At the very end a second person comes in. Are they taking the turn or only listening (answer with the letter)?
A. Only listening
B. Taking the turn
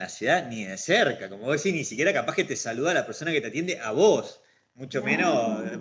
A